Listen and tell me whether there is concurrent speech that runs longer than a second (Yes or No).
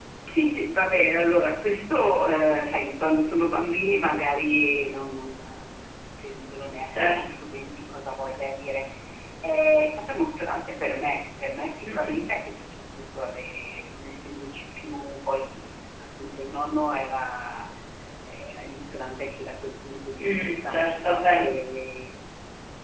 No